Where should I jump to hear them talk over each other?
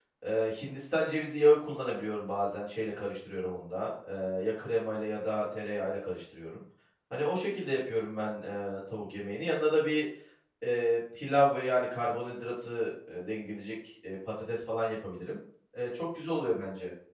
none

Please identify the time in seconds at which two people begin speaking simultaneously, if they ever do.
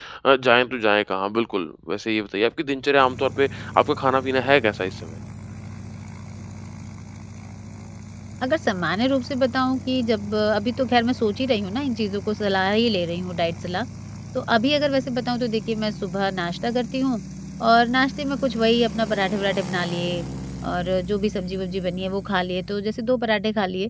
none

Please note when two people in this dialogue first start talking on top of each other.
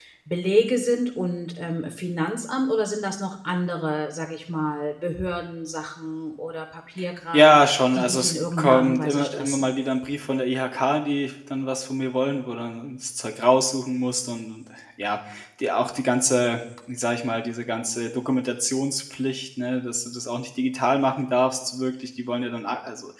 7.3 s

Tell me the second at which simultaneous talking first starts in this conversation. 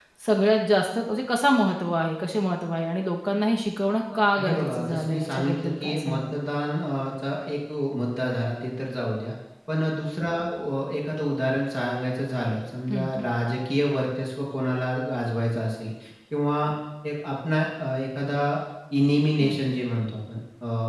4.1 s

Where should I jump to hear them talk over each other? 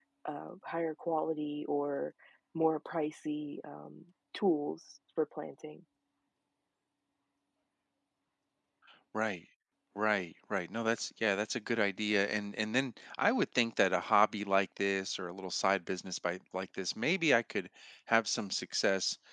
none

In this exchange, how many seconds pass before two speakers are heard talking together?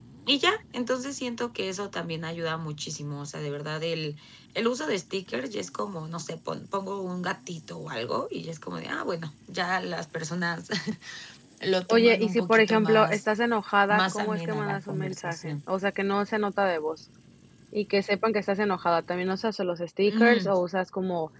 11.9 s

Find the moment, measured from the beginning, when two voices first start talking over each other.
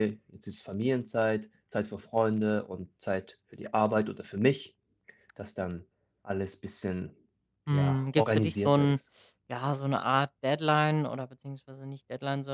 7.7 s

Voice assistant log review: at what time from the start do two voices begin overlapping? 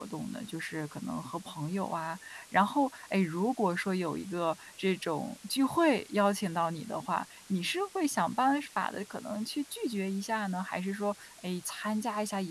none

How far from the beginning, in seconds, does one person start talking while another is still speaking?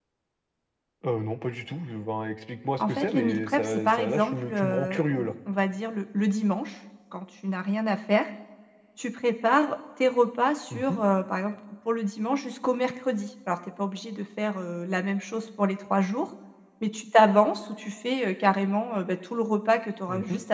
2.8 s

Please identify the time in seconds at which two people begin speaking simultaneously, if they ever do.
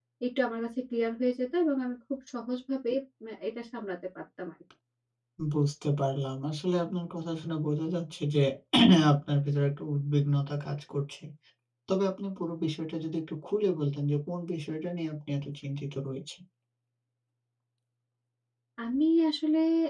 none

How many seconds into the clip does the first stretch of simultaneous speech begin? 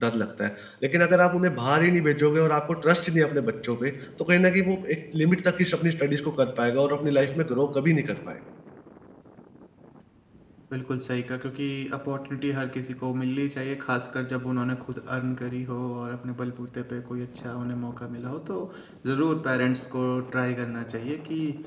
none

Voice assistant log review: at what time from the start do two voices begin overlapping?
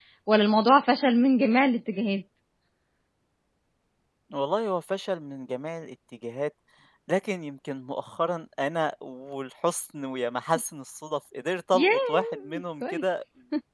11.7 s

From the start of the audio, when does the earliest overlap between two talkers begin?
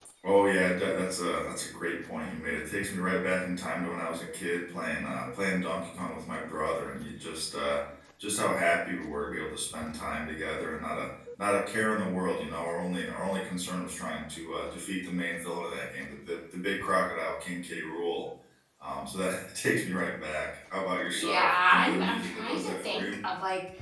21.1 s

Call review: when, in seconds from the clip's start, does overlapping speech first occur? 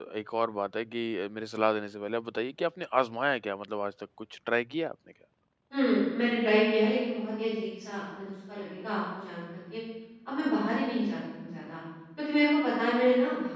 none

